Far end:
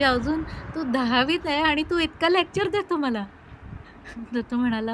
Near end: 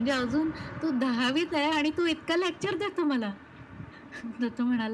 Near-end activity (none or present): none